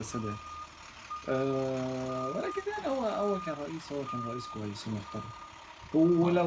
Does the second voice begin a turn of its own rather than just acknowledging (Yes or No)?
No